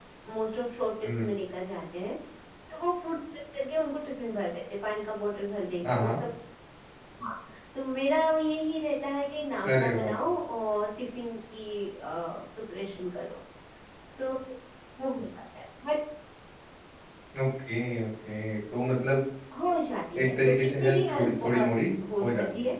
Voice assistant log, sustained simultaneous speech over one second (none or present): present